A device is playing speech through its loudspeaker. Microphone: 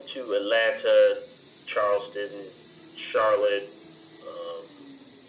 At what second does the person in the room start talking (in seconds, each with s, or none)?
none